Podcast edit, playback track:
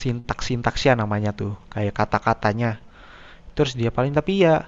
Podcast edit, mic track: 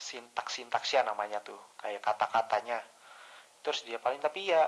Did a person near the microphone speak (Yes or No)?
No